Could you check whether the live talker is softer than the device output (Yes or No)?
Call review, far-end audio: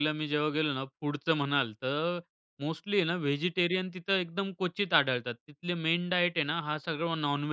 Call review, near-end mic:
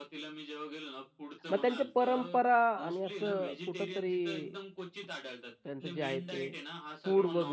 No